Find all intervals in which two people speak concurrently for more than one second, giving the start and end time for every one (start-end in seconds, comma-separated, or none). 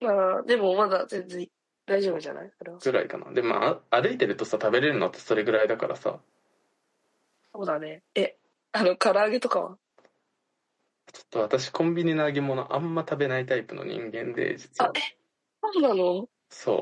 none